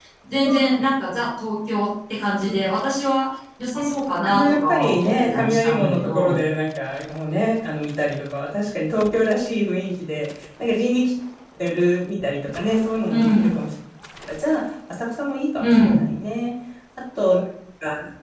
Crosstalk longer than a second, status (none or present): present